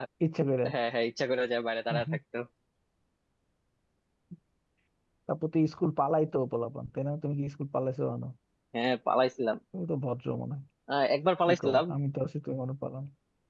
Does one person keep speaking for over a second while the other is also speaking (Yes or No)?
No